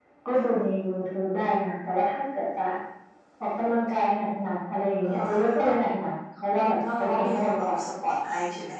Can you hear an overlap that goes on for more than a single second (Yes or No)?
Yes